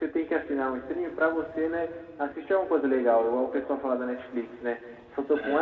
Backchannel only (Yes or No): Yes